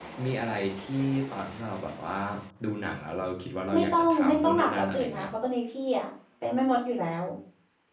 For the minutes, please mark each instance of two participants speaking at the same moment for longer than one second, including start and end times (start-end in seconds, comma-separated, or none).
3.7-5.3